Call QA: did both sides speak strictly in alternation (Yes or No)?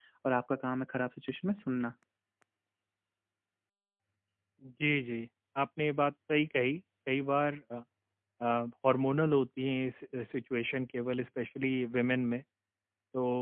Yes